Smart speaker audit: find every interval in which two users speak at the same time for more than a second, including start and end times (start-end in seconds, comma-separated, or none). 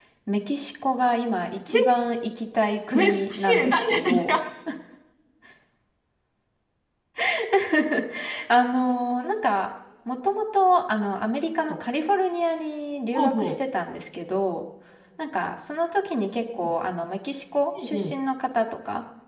2.9-4.4